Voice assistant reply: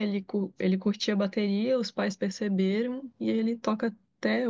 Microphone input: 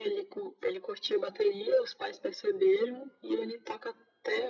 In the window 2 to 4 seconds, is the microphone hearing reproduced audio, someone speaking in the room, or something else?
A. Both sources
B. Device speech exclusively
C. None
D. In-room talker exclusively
B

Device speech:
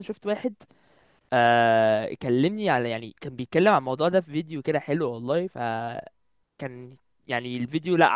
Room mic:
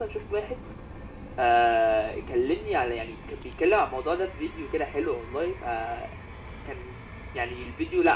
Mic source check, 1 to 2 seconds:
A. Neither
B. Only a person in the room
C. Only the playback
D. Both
C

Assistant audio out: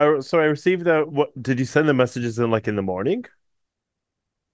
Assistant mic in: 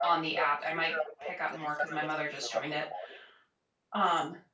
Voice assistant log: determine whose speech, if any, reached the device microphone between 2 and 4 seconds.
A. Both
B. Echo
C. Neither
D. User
A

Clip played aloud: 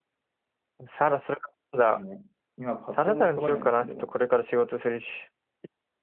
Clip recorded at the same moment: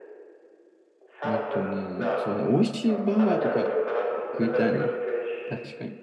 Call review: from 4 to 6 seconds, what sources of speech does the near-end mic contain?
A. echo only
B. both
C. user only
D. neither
B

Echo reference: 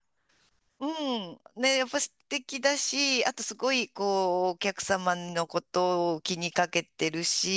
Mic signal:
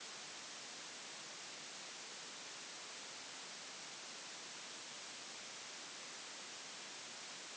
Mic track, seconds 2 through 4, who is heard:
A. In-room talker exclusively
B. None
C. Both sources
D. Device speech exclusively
B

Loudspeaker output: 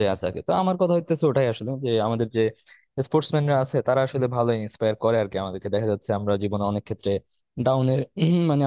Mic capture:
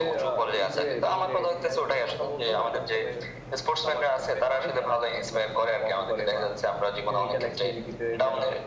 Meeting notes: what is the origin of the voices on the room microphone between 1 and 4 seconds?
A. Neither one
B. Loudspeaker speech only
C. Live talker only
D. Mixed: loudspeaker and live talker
D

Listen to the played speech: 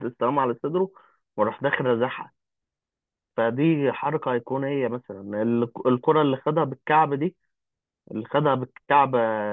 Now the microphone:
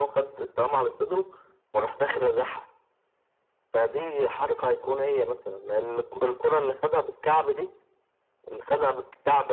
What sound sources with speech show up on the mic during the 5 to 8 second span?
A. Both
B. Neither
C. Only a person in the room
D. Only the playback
D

